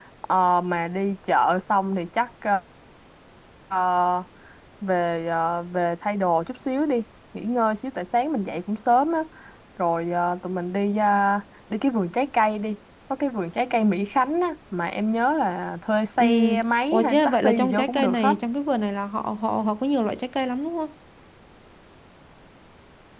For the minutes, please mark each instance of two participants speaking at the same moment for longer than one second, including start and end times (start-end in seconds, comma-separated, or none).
16.9-18.4